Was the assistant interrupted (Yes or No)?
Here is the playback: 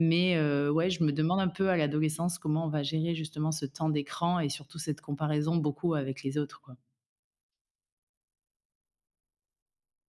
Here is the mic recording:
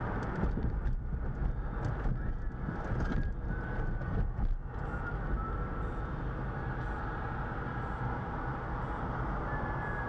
No